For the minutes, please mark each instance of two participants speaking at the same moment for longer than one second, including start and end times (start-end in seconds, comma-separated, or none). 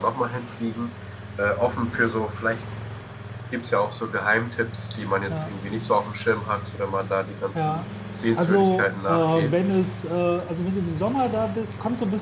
8.4-9.6